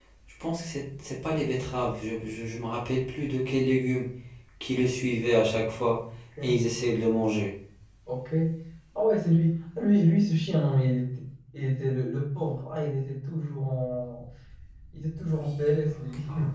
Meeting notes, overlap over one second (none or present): none